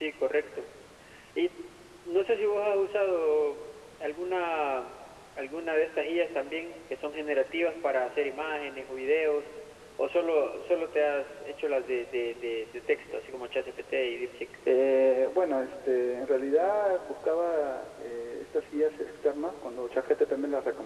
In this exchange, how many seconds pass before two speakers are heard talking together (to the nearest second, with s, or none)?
none